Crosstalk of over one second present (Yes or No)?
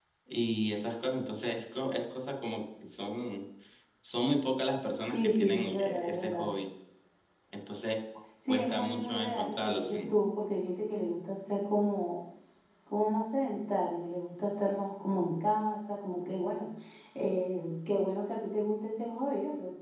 Yes